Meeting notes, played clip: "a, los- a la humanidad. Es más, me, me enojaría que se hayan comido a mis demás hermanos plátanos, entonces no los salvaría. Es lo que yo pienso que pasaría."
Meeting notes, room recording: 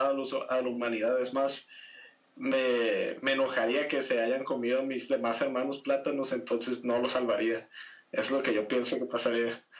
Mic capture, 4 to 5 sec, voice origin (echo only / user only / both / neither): echo only